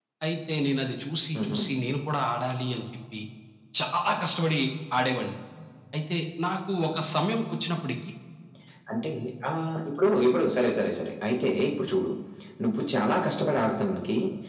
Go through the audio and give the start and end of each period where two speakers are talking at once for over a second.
none

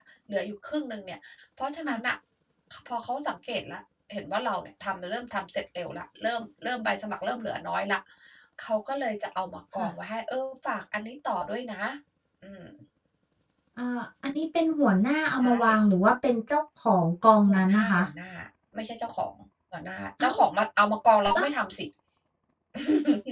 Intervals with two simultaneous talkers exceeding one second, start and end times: none

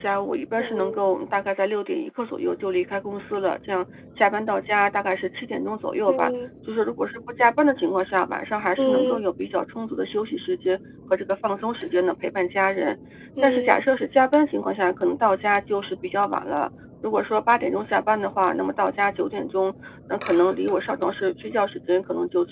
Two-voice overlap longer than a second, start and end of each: none

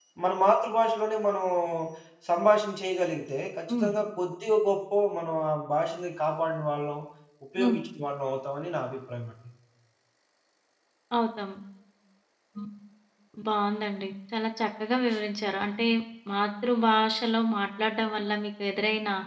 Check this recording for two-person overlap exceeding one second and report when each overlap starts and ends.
none

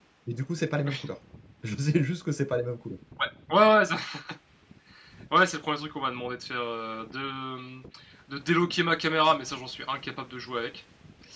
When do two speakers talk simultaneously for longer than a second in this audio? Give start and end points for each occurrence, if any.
none

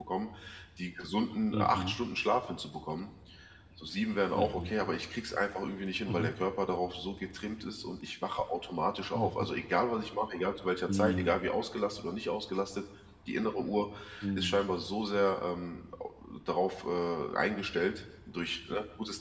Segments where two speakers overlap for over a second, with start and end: none

